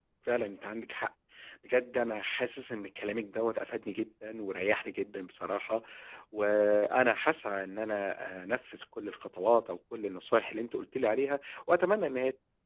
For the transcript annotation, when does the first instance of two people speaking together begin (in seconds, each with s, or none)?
none